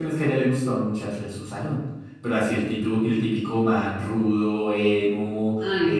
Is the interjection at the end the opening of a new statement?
No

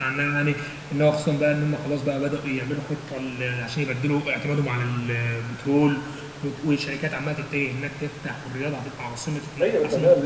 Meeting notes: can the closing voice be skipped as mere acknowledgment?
No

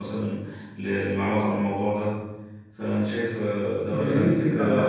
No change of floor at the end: No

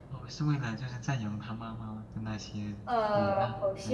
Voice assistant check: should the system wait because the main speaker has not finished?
No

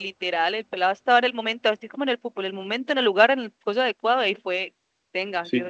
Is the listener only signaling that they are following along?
No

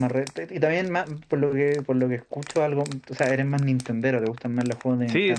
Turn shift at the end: Yes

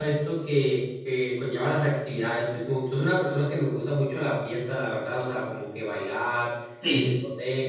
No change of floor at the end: Yes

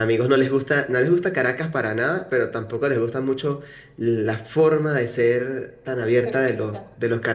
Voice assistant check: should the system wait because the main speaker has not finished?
Yes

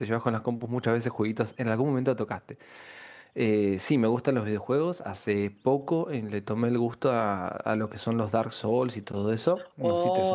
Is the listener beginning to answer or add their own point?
Yes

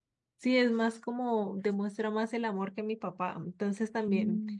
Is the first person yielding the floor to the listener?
No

